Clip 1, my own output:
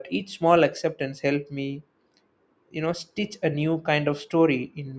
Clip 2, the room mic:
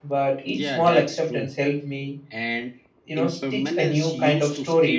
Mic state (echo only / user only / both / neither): both